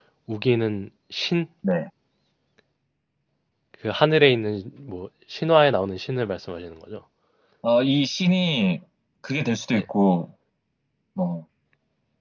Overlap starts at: none

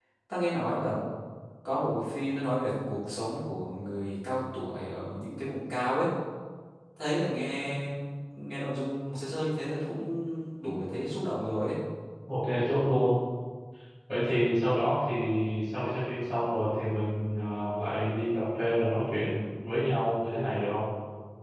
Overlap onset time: none

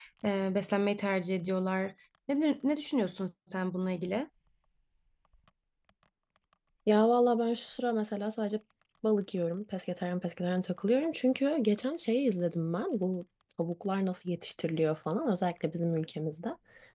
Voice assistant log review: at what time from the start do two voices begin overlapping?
none

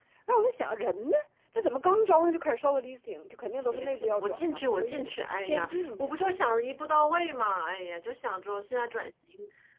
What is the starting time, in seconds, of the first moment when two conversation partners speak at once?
4 s

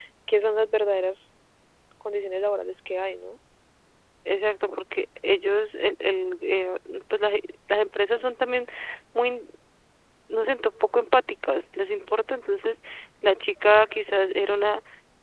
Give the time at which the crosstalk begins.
none

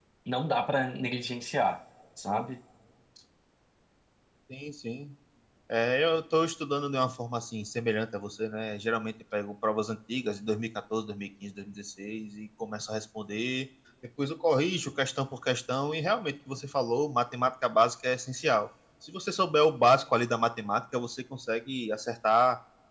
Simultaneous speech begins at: none

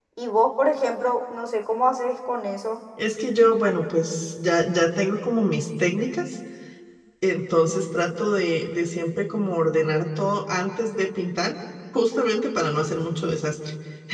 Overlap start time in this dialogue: none

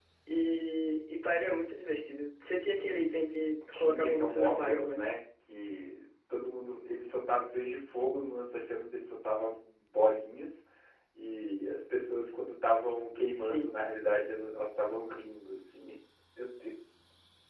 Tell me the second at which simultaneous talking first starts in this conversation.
4 s

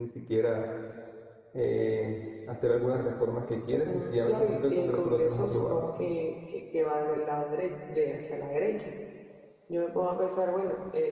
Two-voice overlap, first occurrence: 4 s

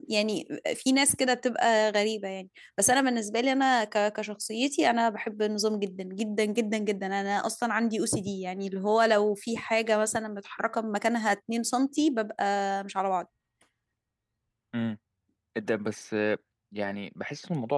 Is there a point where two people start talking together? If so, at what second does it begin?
none

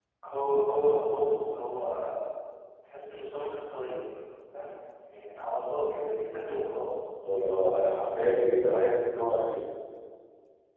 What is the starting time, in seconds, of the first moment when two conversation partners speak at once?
none

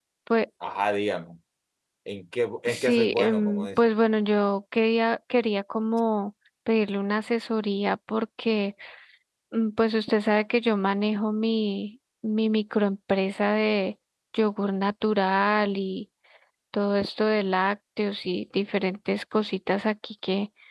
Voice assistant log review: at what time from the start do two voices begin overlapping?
3 s

